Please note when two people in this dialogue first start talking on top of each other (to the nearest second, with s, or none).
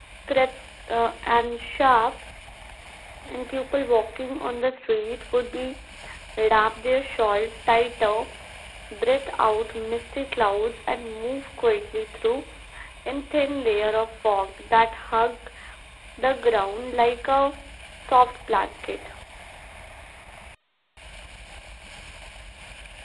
none